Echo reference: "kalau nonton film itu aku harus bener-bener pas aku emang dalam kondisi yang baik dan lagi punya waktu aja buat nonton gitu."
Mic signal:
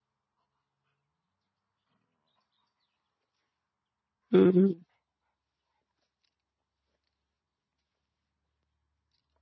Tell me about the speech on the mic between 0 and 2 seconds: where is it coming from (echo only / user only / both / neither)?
neither